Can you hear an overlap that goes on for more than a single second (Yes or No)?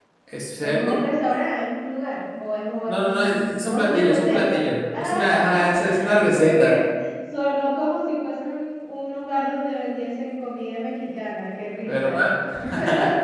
Yes